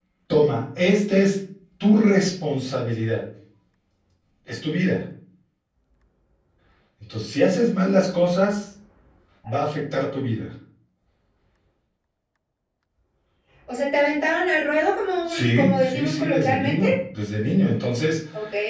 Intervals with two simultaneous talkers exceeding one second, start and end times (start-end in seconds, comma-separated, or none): 15.3-16.8